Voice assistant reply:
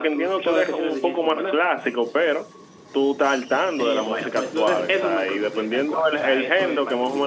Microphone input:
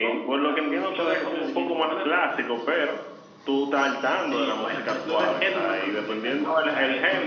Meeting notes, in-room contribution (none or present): none